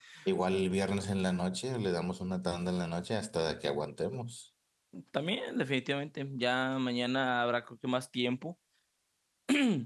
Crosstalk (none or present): none